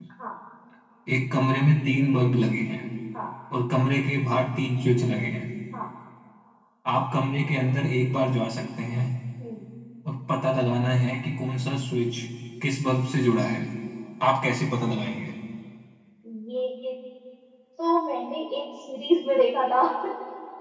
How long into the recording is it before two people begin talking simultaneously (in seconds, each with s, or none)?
none